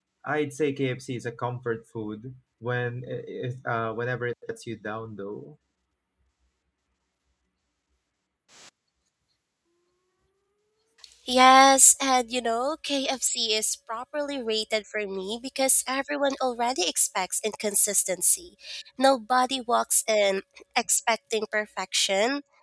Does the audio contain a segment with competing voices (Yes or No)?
No